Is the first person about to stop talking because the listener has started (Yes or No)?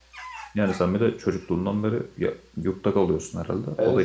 Yes